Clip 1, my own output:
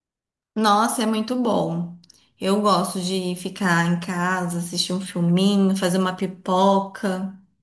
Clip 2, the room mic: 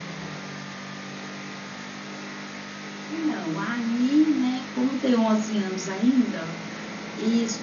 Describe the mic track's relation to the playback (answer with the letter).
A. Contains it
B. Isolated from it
B